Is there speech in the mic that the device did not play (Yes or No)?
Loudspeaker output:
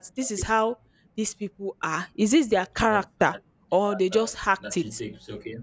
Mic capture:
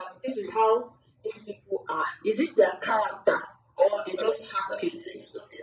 No